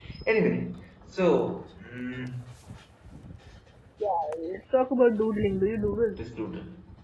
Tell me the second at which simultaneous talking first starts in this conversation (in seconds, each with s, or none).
none